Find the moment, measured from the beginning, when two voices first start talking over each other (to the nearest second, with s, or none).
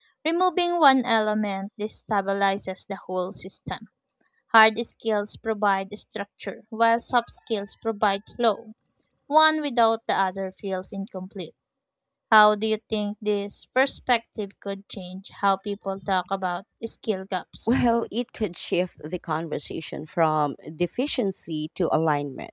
none